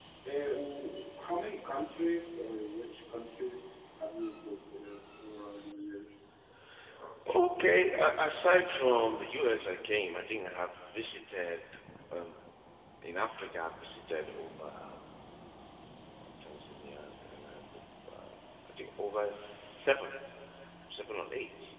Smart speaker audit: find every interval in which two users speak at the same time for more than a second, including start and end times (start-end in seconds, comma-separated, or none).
none